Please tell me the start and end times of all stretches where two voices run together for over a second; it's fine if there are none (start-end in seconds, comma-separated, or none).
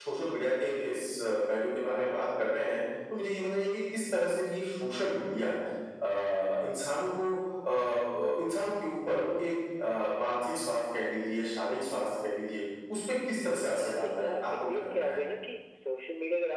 13.8-15.2